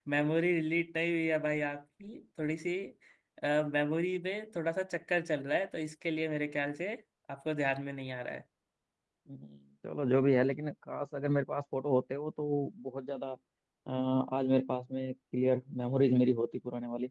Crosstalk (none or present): none